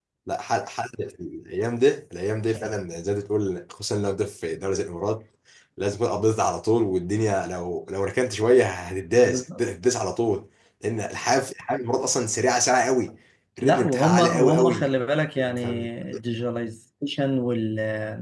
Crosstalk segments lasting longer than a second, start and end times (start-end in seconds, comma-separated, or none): 13.6-15.0